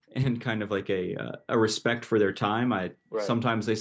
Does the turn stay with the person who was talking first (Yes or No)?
Yes